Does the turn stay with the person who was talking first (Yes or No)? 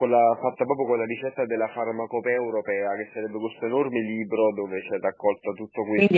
No